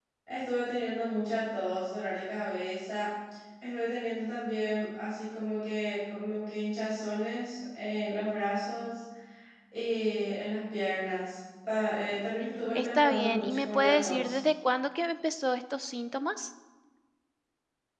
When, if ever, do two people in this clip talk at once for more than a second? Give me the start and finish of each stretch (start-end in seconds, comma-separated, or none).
12.7-14.4